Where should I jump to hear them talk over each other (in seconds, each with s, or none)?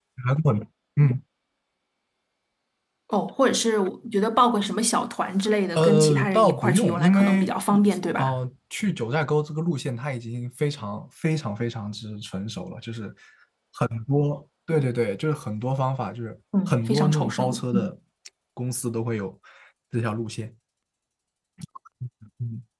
5.8 s